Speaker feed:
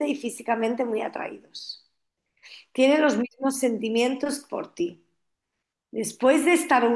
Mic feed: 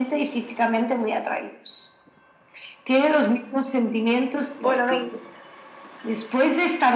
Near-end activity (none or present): present